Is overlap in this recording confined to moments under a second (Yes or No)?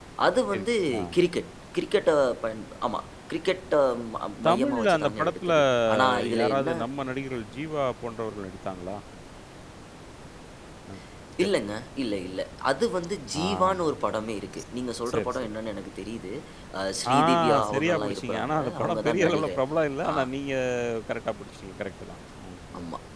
No